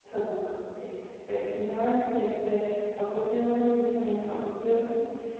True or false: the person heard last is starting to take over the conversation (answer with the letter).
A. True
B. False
A